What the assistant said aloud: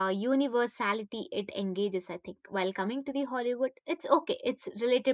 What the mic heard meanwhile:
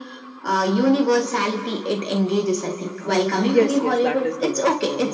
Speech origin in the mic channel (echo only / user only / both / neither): both